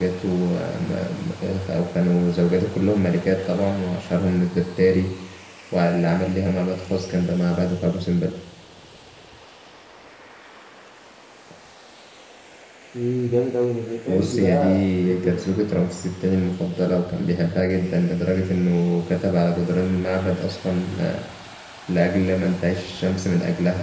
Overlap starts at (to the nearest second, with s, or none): 14 s